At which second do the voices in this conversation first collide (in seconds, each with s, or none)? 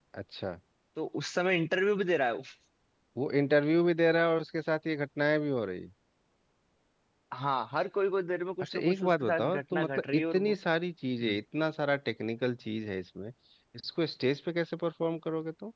8.6 s